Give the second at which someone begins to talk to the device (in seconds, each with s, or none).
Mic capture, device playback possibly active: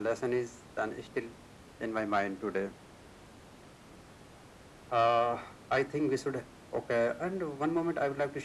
none